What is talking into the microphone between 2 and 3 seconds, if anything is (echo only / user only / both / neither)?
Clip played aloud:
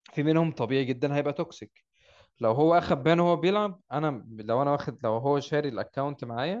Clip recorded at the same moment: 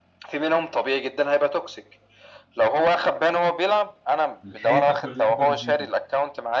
echo only